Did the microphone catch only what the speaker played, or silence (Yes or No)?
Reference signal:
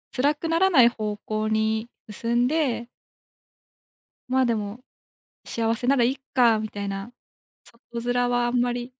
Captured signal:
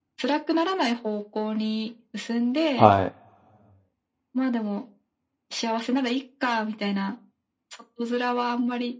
No